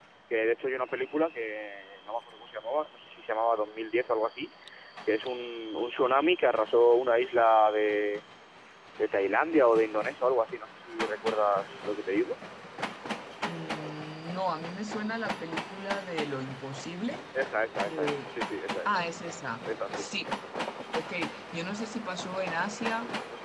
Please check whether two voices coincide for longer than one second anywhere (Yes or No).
No